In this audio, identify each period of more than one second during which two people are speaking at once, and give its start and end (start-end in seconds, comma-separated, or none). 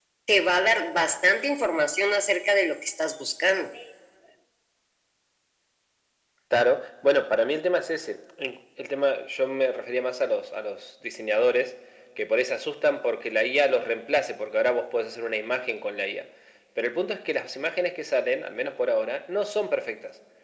none